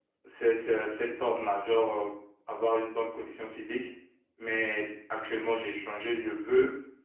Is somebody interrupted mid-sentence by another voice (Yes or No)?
No